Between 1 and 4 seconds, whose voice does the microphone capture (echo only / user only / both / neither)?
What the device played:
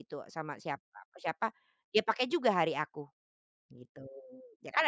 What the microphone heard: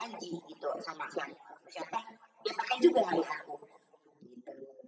echo only